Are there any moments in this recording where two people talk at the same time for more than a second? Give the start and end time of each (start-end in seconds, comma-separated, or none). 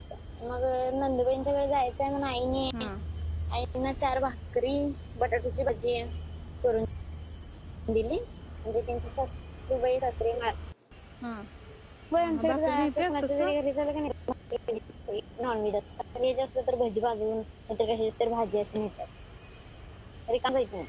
12.2-13.5